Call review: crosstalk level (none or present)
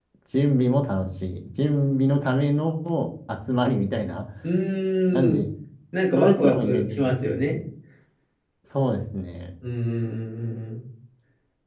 present